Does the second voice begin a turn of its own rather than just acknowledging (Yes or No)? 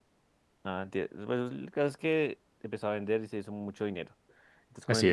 No